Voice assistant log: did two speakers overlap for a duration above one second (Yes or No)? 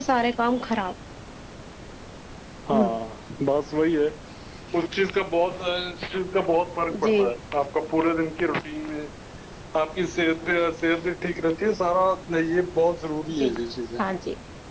No